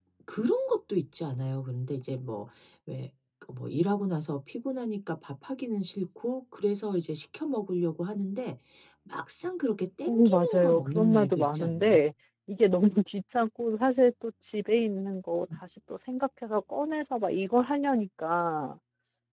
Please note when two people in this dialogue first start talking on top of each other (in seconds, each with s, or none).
10.1 s